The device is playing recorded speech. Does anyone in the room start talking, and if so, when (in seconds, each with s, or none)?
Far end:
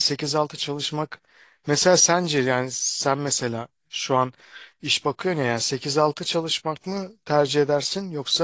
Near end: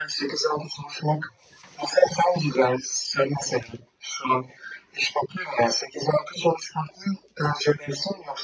none